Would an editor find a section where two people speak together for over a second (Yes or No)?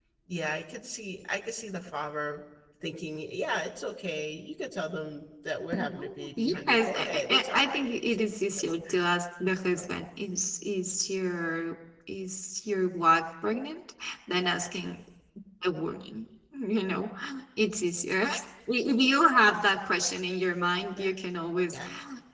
Yes